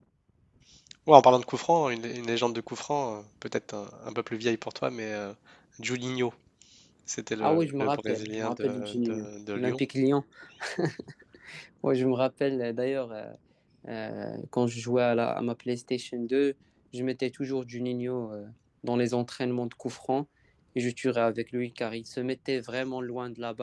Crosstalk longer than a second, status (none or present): present